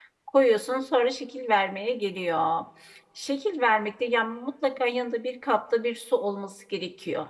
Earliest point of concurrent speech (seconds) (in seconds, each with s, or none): none